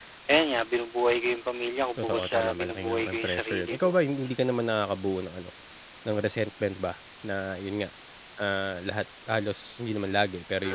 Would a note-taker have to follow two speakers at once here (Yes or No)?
Yes